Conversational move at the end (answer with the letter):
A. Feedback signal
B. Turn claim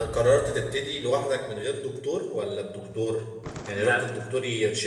A